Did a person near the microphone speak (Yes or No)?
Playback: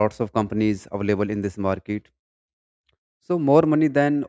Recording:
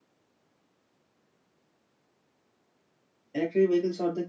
Yes